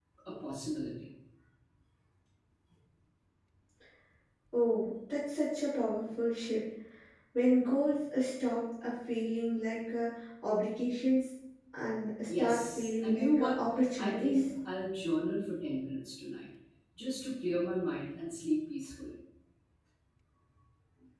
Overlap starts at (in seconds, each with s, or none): 12.3 s